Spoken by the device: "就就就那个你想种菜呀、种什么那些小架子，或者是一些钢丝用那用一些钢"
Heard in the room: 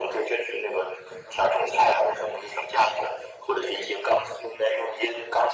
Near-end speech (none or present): none